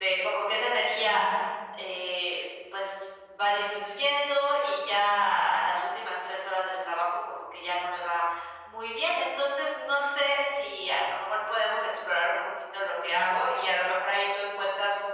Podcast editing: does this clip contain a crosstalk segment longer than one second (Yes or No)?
No